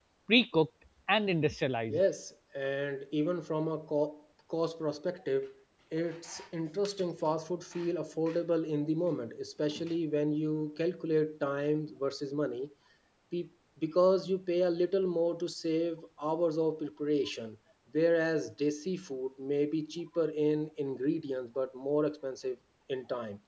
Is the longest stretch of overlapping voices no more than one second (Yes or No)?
Yes